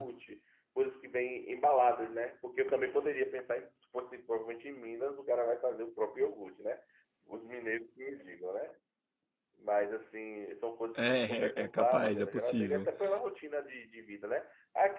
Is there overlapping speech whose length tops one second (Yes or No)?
Yes